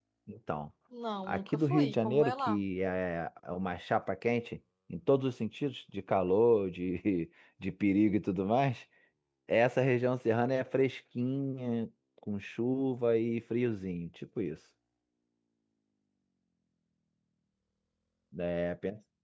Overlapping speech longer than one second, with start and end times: 1.3-2.6

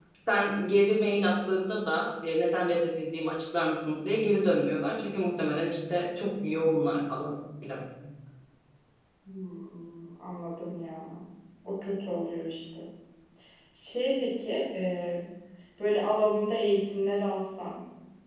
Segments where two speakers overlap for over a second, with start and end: none

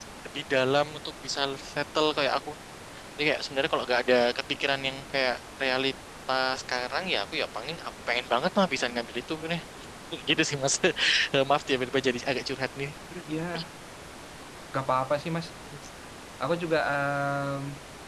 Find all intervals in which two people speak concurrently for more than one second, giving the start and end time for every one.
none

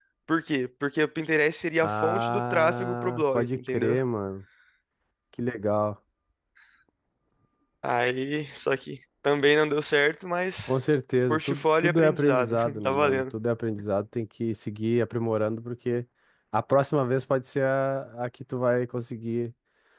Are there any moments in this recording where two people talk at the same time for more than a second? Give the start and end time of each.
1.8-4.0, 11.3-13.2

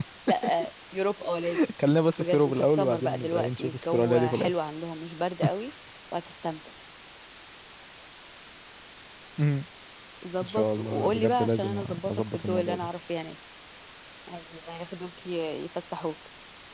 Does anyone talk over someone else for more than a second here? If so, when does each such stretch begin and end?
2.2-4.5, 10.4-12.9

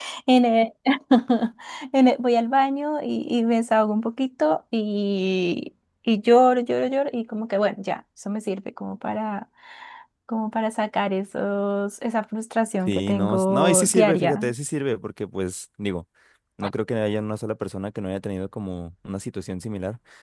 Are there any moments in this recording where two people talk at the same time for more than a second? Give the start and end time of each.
12.9-14.4

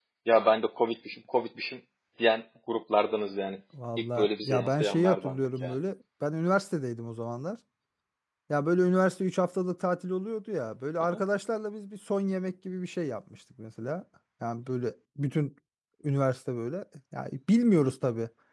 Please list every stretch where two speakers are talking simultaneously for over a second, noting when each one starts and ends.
4.0-5.8

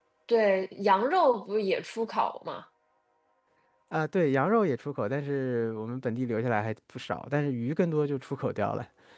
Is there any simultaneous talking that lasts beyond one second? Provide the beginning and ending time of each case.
none

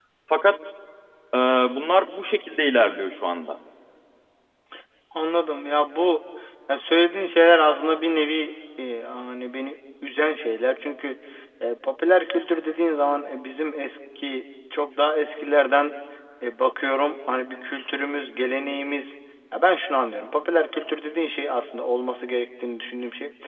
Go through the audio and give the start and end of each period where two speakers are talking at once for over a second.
none

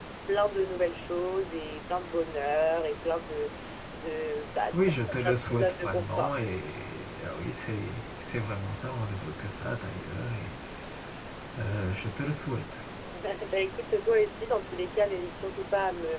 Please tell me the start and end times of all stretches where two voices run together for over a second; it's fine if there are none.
4.7-6.3

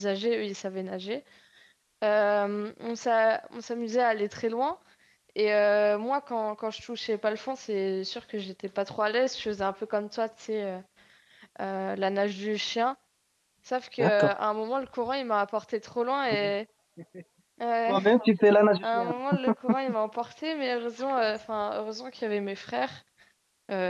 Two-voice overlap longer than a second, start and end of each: none

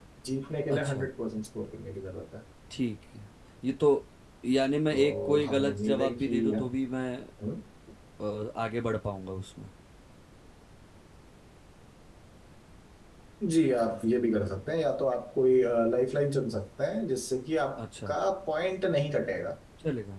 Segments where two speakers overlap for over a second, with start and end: 4.9-6.5

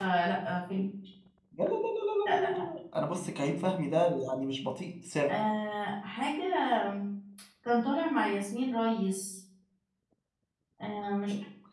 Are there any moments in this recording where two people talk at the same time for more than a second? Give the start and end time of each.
none

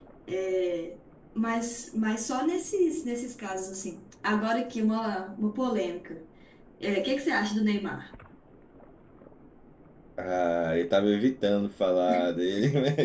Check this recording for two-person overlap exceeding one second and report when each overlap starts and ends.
none

